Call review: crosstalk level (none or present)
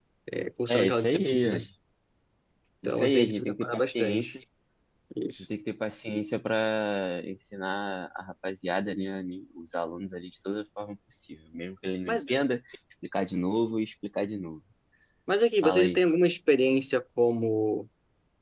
present